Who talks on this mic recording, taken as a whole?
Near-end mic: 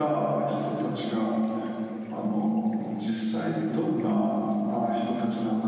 echo only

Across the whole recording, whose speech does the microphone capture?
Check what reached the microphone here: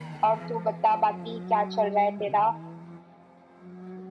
echo only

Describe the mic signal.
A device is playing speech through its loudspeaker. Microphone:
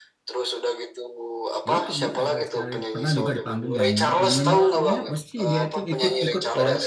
both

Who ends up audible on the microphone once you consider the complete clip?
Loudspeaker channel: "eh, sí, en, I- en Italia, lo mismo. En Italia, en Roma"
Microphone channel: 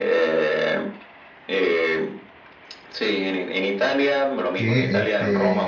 both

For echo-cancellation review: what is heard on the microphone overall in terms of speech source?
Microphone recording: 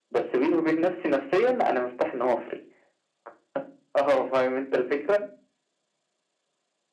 echo only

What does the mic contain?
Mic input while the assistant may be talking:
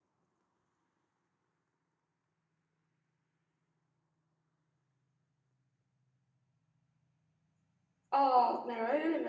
user only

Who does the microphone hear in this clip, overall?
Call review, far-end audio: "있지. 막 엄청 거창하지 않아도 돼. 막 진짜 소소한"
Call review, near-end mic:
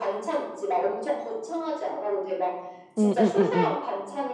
both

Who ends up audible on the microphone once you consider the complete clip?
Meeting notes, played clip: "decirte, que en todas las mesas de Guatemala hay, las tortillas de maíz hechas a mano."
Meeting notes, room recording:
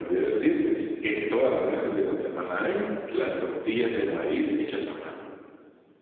echo only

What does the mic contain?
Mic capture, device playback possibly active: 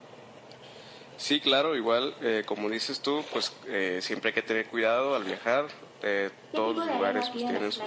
both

